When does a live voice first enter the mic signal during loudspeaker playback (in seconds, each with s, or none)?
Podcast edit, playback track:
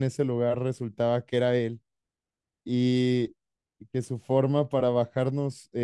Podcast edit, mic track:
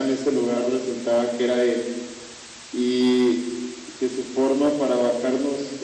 none